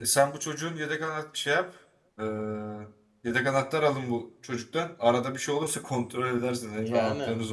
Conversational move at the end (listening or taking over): taking over